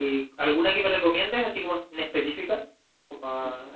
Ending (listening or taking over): taking over